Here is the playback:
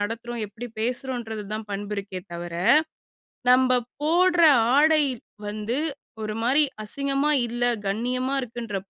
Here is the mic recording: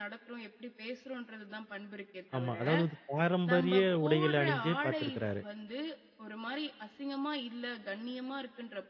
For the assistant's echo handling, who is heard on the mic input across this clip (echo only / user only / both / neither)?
both